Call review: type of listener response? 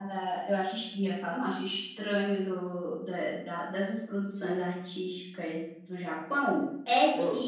listening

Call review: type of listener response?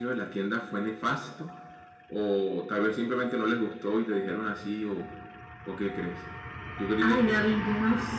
taking over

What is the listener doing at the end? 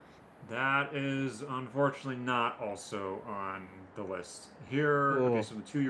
listening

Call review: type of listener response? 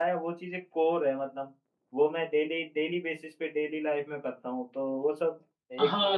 taking over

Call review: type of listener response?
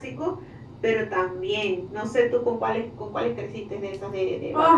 taking over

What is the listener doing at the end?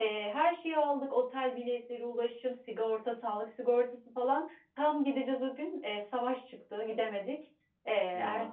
listening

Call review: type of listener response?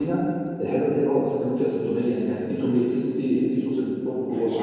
taking over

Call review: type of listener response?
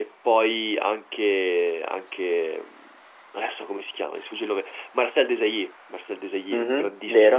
taking over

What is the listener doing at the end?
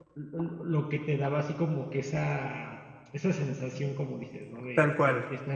listening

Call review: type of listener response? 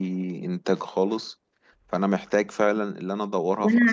taking over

